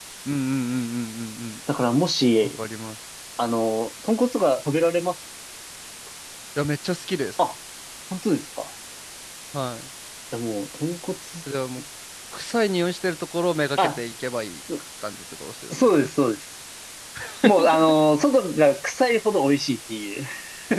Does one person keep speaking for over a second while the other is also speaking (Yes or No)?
No